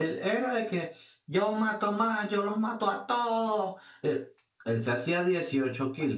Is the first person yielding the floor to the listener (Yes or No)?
No